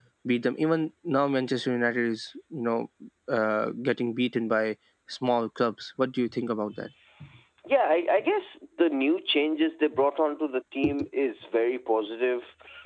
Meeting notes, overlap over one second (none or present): none